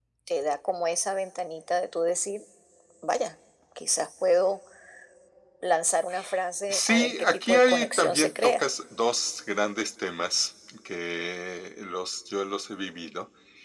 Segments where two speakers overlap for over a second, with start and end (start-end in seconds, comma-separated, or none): 6.7-8.7